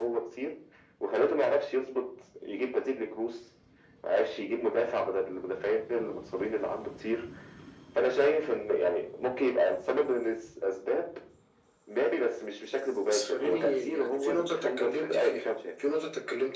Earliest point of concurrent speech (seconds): 13.1 s

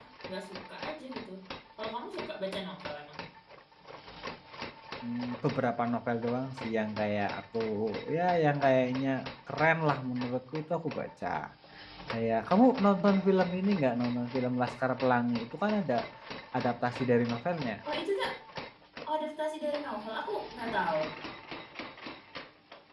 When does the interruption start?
none

